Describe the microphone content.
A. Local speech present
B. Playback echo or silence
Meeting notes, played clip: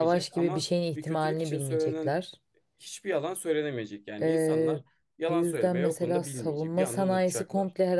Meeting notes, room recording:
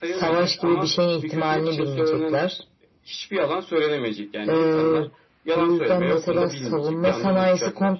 B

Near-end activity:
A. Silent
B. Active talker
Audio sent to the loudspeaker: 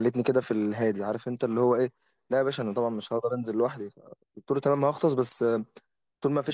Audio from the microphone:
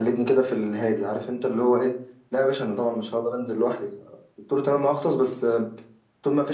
A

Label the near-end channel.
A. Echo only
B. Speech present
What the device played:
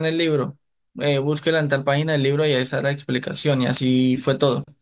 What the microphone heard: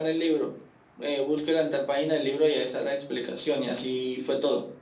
A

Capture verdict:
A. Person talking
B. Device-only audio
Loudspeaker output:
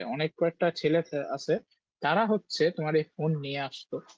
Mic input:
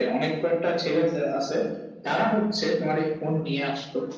B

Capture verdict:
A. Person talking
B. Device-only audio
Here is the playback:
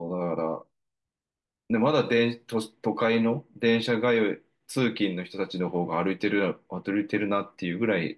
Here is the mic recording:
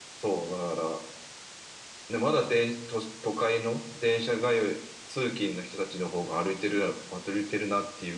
B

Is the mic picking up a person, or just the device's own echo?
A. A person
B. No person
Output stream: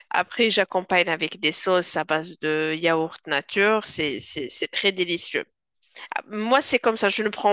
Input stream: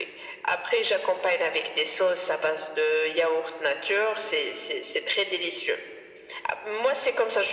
B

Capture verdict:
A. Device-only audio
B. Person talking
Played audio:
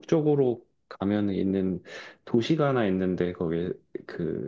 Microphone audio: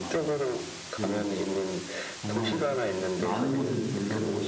B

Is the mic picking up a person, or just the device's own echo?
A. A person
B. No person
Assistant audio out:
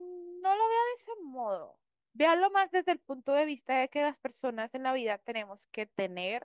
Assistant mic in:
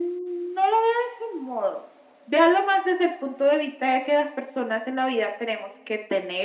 B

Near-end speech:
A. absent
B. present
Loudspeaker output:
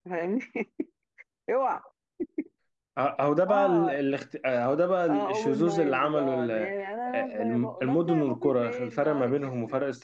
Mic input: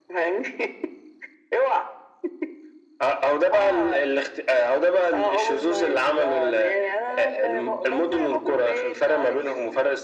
A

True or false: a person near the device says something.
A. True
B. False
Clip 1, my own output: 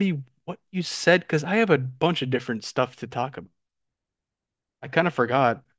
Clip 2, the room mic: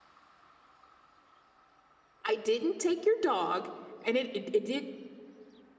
A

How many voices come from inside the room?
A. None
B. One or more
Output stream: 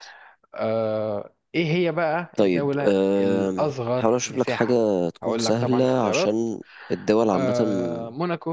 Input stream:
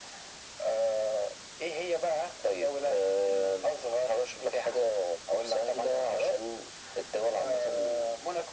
A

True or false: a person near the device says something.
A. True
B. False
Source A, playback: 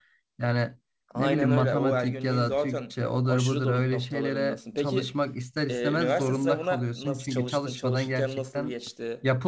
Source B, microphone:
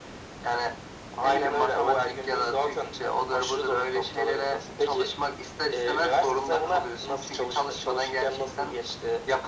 B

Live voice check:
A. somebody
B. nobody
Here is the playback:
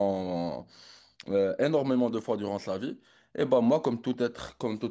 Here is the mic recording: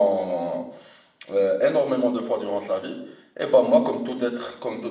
B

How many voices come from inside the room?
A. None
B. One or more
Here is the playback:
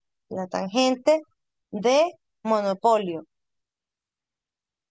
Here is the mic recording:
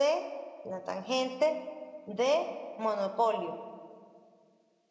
A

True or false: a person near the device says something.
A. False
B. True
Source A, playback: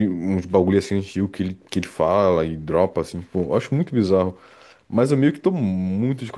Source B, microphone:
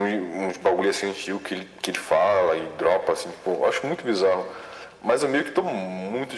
A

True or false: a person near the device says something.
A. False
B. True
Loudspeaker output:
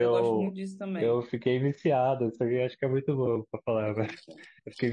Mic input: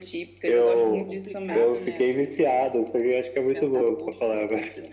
B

